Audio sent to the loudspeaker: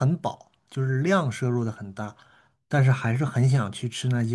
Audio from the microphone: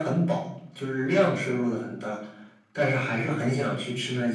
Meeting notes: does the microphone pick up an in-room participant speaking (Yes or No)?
No